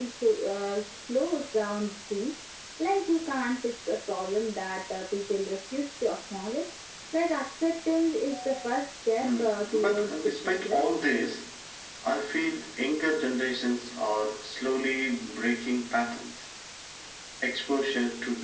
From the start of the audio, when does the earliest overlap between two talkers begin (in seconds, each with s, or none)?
9.2 s